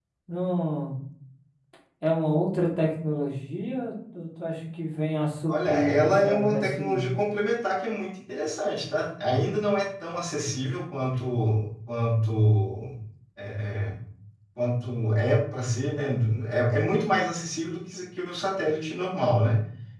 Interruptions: present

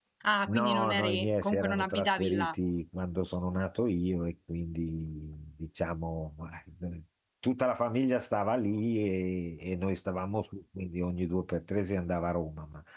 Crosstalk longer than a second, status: present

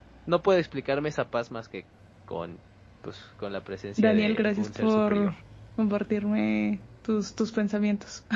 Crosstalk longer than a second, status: present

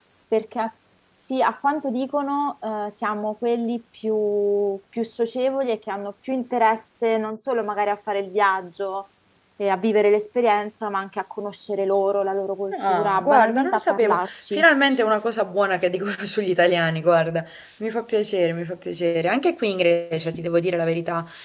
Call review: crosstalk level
present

